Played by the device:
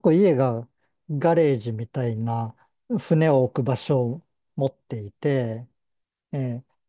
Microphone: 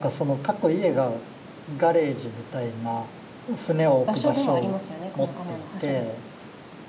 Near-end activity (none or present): present